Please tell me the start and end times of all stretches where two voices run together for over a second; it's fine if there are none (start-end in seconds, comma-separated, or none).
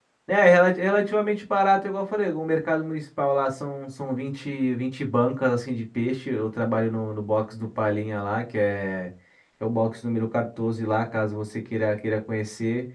none